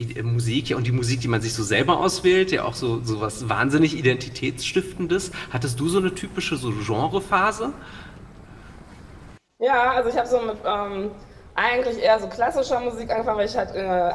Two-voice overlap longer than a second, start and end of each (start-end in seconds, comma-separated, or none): none